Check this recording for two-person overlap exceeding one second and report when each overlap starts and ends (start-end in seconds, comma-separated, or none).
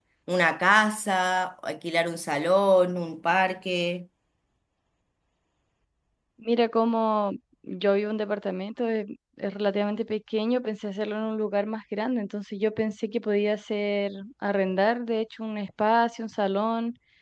none